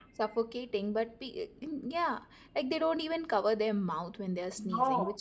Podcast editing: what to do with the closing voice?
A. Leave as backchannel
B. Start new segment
A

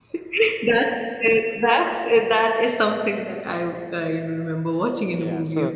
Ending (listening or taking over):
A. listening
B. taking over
B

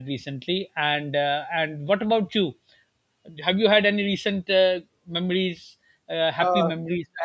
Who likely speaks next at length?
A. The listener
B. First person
A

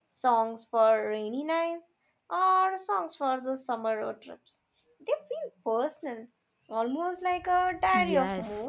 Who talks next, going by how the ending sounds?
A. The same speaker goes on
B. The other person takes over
B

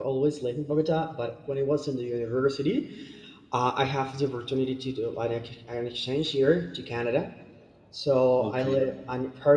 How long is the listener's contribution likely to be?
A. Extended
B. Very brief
B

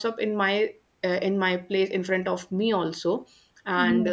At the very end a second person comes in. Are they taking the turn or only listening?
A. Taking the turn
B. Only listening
B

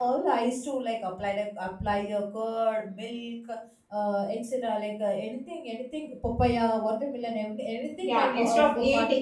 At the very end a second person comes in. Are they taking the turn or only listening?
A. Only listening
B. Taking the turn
B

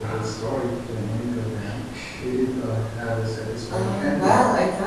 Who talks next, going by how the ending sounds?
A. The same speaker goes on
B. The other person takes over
B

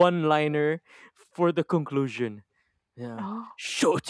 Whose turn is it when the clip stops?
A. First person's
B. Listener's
A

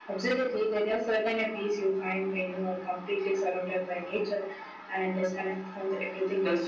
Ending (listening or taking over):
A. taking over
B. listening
A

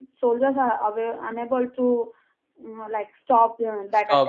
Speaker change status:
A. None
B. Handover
B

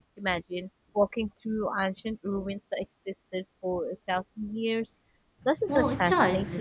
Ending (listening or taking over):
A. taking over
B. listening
A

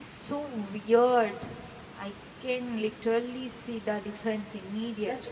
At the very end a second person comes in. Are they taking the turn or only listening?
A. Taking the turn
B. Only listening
A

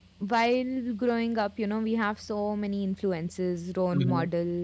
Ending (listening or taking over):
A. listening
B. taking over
A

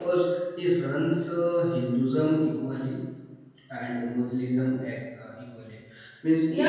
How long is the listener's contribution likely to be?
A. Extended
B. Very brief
A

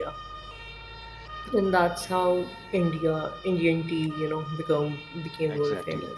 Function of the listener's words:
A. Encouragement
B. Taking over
B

